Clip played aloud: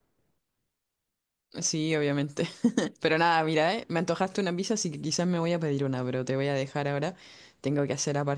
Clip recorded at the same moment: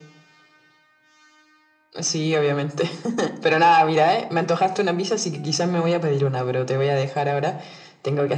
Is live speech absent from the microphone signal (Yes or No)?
Yes